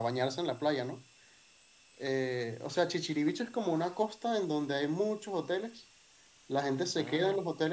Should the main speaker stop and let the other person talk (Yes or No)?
No